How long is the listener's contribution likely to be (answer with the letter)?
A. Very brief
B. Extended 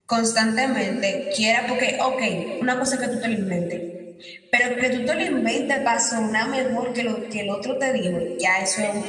B